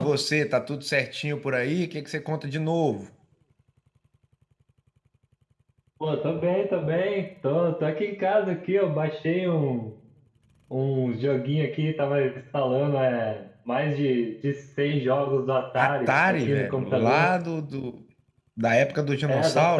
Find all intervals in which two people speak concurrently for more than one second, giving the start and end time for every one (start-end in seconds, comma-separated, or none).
15.8-17.3